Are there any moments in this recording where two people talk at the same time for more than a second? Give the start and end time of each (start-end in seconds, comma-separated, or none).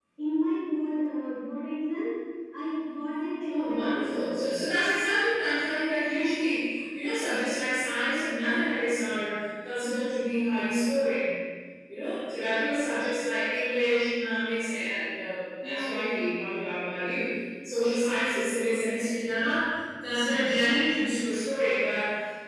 3.5-4.7